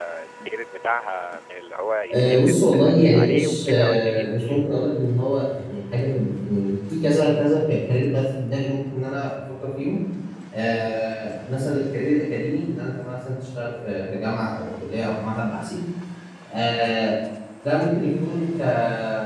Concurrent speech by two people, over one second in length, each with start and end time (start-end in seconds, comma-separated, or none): 2.1-4.2